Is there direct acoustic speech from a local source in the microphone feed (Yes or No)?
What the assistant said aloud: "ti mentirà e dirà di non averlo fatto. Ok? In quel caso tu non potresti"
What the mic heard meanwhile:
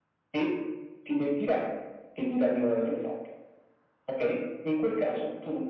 No